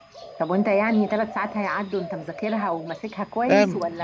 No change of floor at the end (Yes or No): No